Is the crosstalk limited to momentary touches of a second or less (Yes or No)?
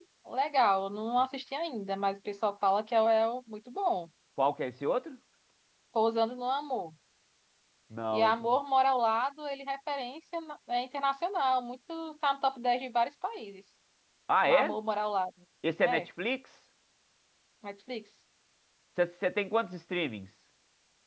Yes